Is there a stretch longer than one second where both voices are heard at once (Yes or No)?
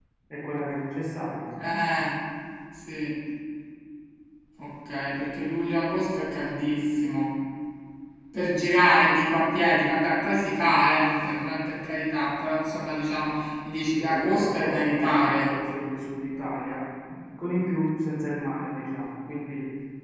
Yes